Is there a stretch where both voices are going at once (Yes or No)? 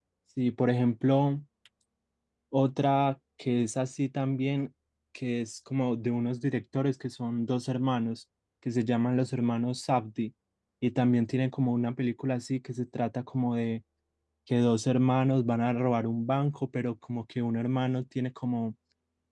No